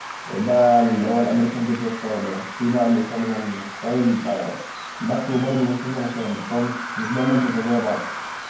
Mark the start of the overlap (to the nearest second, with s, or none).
none